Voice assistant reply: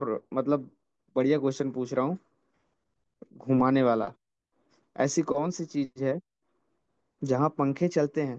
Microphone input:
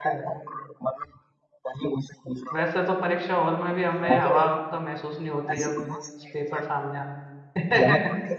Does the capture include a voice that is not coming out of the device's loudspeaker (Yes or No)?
Yes